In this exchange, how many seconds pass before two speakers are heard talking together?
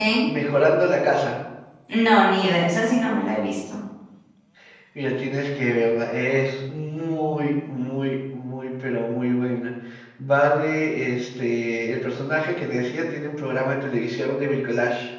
none

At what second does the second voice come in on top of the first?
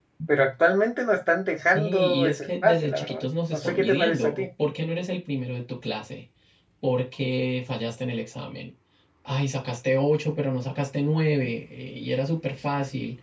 1.6 s

